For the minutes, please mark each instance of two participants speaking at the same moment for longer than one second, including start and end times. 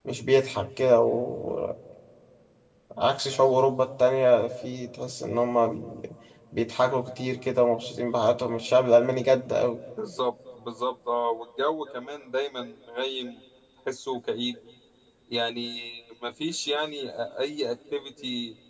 none

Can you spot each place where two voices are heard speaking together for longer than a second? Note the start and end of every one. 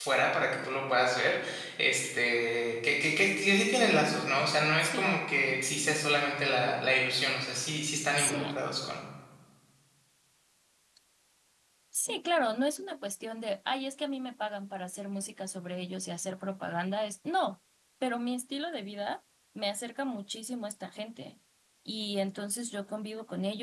none

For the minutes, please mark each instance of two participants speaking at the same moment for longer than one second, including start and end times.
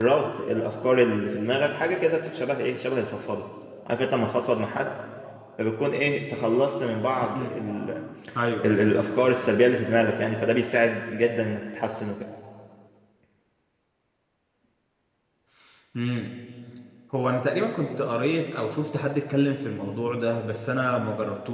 none

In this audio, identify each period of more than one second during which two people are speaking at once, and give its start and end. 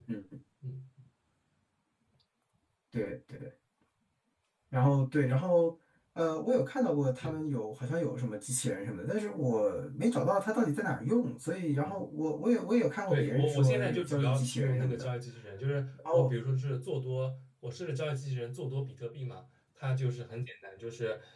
13.1-15.0

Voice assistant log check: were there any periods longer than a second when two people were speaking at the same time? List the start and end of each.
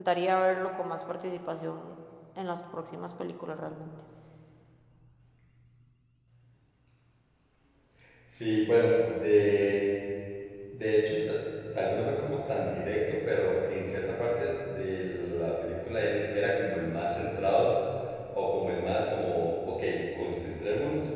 none

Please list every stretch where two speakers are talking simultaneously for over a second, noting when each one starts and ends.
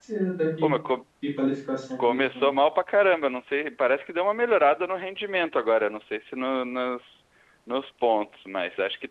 none

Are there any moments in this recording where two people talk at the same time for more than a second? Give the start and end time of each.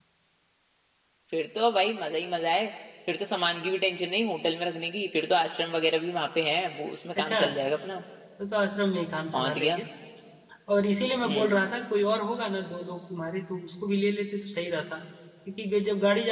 none

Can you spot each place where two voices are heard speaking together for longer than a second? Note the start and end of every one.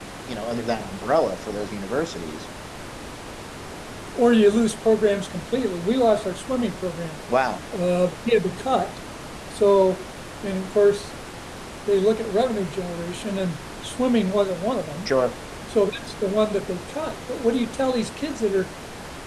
none

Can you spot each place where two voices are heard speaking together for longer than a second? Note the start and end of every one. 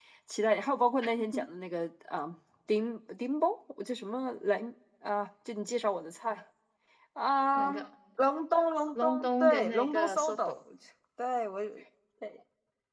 8.9-10.6

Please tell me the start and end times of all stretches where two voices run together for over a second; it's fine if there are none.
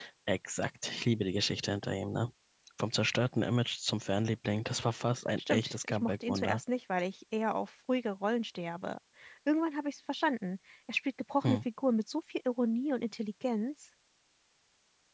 5.4-6.6

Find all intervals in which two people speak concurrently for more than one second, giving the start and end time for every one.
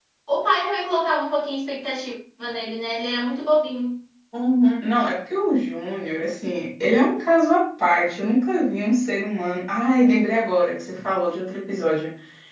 none

